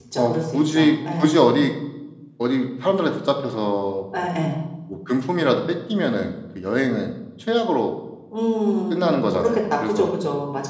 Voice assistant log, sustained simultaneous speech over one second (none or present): present